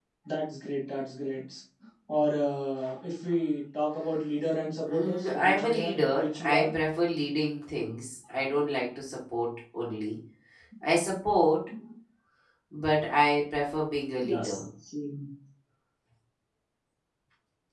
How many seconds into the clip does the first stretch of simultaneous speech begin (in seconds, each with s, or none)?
4.9 s